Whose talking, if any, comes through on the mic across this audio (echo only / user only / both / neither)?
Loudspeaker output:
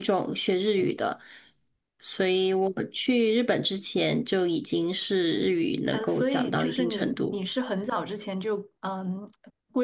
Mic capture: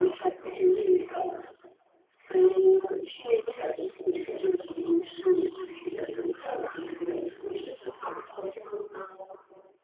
echo only